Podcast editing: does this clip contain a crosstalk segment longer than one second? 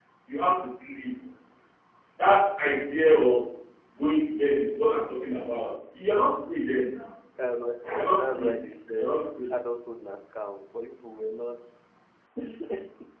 No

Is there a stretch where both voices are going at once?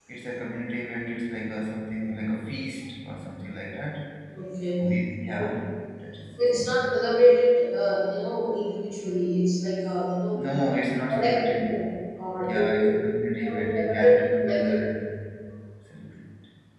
Yes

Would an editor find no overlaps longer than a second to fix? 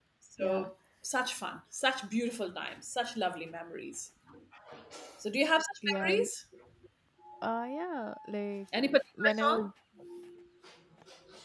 Yes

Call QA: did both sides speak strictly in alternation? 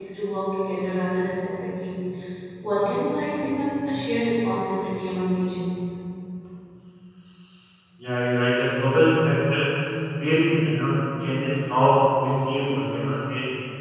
Yes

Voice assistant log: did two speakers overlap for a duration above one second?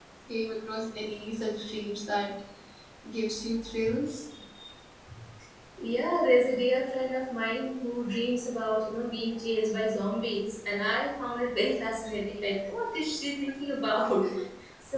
No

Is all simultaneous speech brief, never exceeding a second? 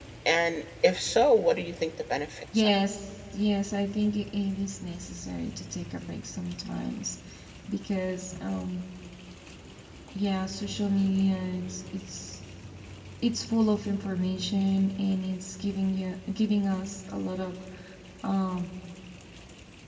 Yes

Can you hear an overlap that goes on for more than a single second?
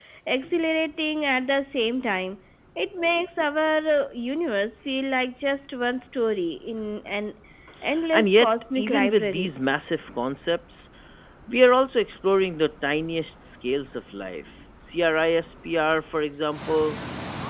Yes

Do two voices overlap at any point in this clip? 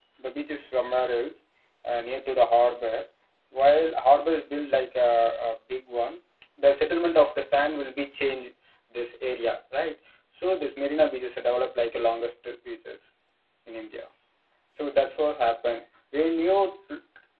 No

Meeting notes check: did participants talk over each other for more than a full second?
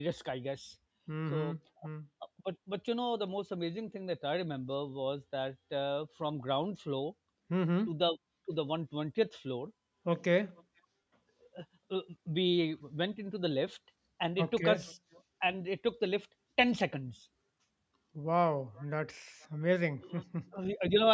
No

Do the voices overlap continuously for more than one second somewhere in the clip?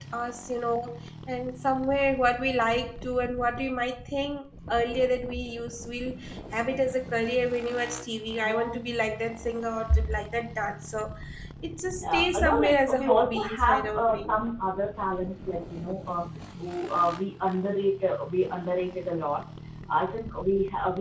Yes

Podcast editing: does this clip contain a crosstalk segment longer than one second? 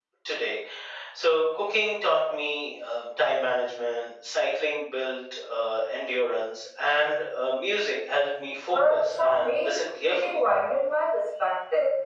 Yes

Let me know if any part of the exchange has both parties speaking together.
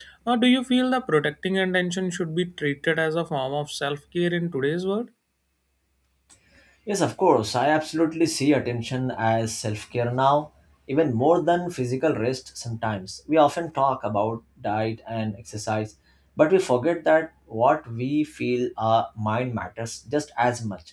No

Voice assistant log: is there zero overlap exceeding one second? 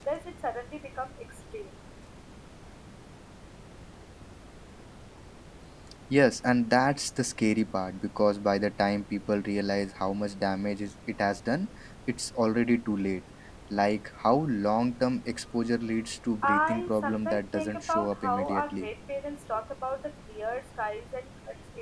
No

